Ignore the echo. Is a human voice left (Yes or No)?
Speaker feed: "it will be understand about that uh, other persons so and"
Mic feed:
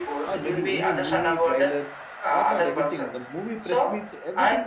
Yes